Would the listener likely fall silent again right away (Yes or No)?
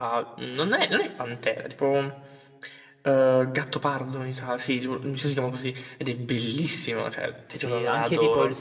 No